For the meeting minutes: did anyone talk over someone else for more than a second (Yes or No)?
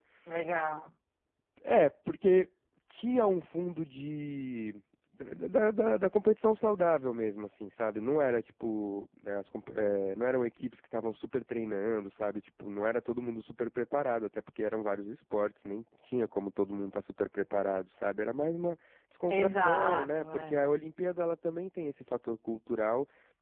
Yes